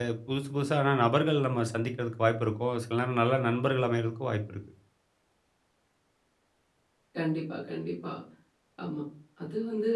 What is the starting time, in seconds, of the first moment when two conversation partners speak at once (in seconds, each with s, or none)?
none